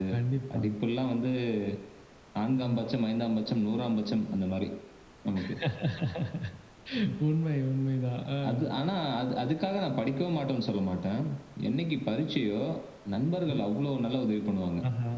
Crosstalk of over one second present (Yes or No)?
No